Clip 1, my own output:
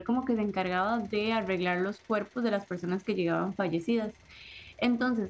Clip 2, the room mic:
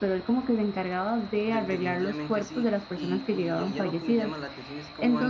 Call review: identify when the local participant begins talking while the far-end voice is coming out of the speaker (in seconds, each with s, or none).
1.4 s